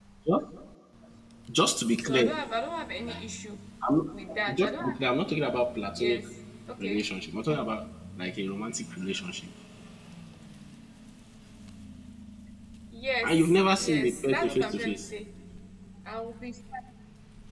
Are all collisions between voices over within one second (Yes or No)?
No